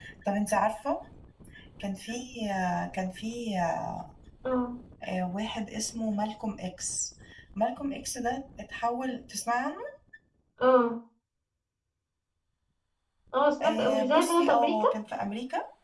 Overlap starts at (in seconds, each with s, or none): 13.6 s